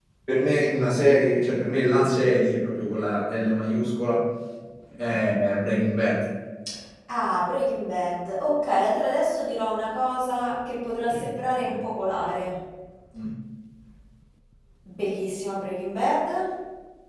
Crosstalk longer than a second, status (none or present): none